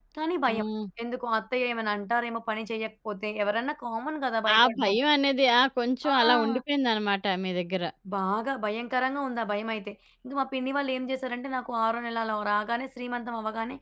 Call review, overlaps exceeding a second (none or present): none